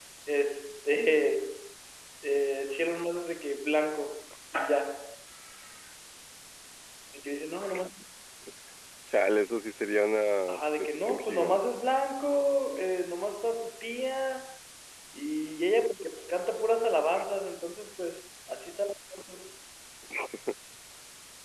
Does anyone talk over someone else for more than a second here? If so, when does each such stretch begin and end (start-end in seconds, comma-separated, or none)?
10.5-11.7